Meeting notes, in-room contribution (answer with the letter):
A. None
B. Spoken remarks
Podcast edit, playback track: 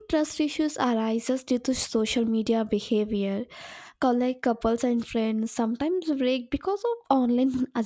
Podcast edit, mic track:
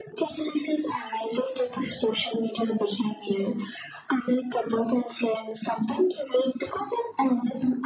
A